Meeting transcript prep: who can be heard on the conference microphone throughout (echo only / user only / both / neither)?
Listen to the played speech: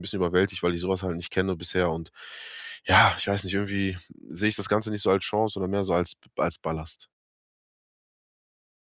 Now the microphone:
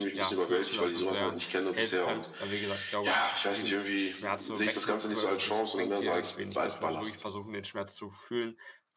both